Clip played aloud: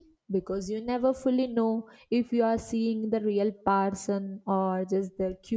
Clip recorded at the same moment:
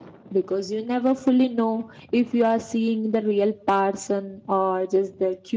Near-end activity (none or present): none